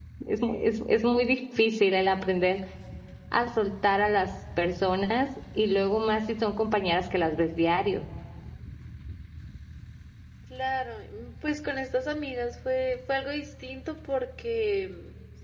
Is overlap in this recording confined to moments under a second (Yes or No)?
Yes